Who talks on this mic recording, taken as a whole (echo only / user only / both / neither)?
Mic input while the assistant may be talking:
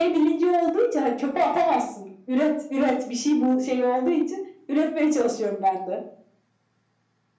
echo only